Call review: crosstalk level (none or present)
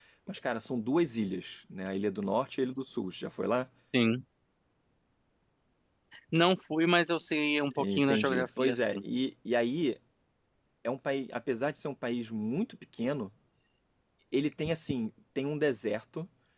present